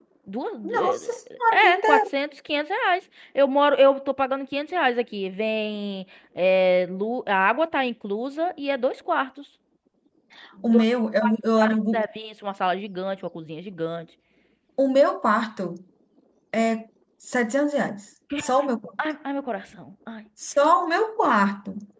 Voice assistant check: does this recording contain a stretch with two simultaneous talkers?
Yes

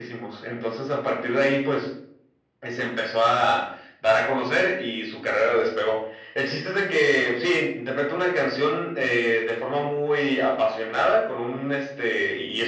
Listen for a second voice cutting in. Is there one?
No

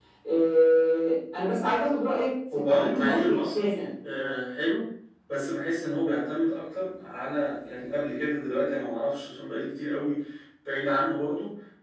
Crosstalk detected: Yes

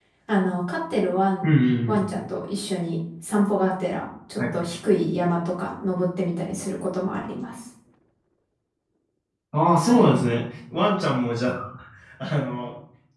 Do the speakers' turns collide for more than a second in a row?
No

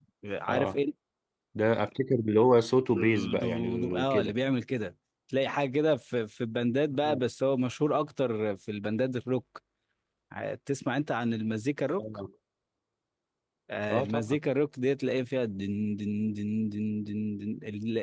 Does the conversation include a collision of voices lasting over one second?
Yes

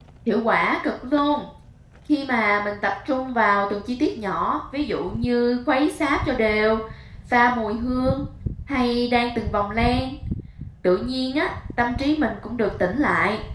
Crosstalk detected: No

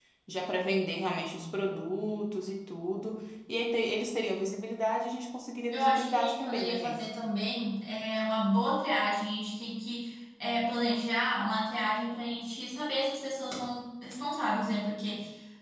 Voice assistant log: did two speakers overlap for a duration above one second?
Yes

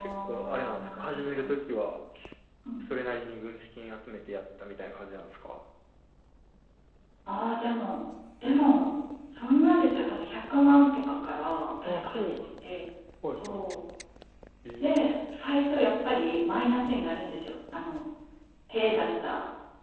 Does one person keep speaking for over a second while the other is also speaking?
Yes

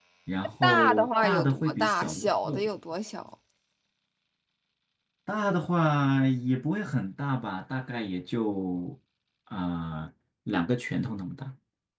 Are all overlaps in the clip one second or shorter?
No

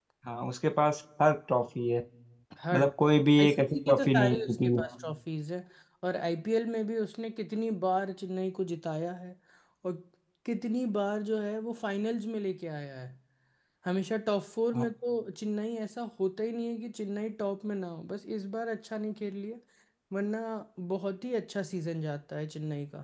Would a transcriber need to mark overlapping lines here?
Yes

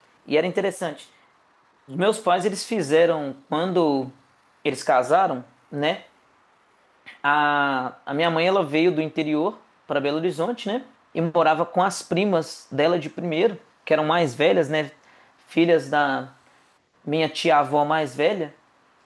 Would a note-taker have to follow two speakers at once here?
No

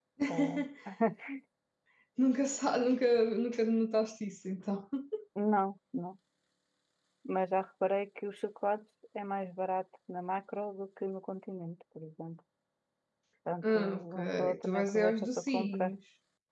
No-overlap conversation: No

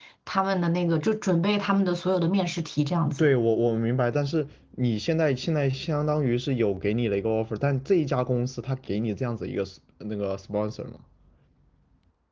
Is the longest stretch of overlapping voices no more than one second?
Yes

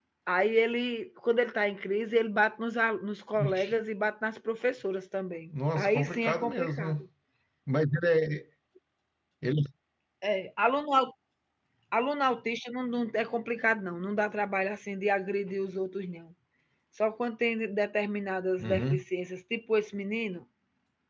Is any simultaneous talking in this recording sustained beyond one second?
Yes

